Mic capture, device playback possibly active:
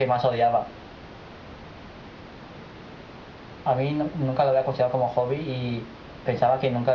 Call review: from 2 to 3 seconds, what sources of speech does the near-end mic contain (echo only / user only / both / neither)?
neither